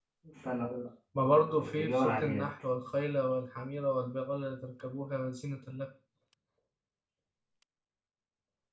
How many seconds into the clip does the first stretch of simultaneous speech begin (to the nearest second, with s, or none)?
1 s